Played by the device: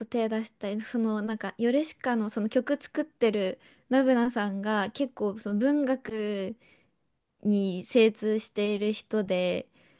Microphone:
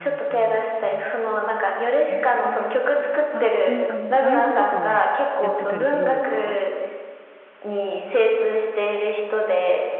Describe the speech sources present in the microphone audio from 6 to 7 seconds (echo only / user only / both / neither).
both